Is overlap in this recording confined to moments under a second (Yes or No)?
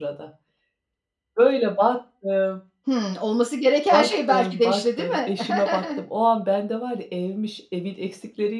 No